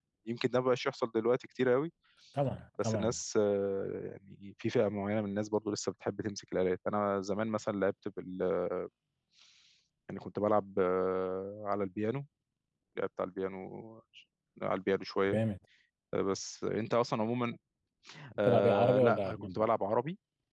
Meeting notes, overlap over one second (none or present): present